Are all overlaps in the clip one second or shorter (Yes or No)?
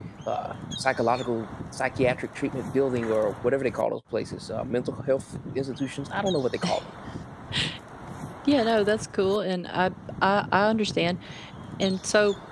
Yes